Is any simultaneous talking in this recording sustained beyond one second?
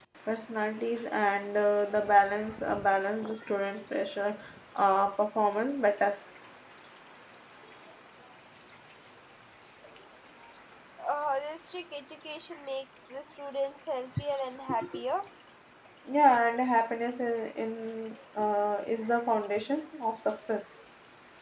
No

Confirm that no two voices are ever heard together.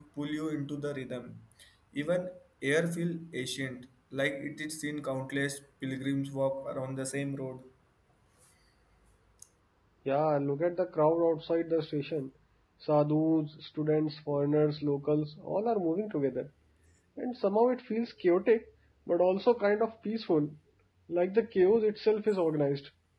Yes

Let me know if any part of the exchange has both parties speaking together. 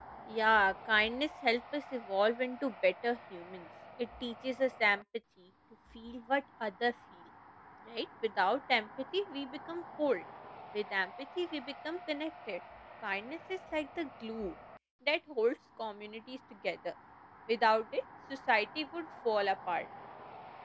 No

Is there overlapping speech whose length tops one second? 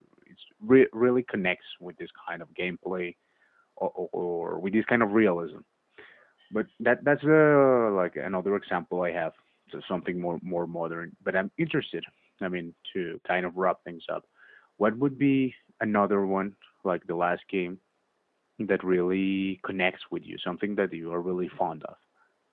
No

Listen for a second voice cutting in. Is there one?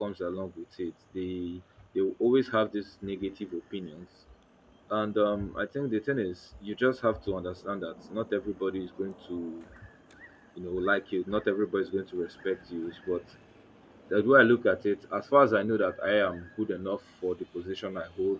No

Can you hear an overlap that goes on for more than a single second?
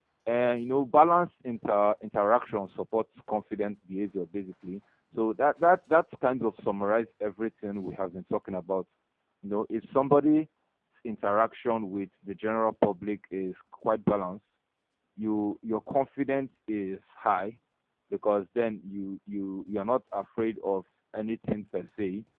No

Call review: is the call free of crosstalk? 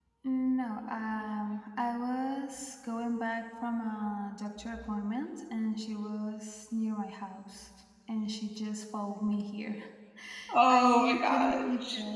No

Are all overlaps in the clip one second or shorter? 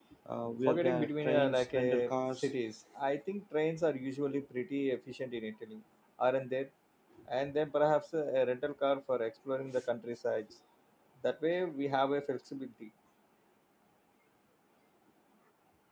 No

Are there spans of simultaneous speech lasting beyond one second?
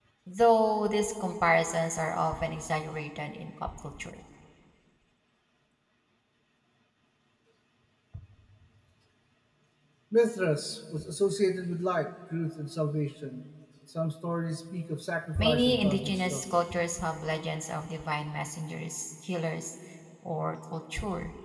Yes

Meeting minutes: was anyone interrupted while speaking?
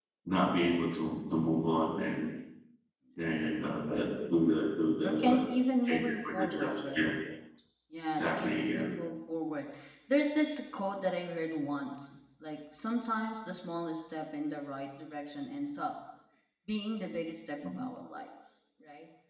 Yes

